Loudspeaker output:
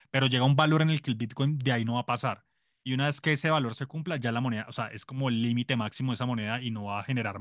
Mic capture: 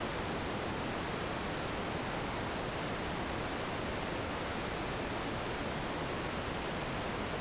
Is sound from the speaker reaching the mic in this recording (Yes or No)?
No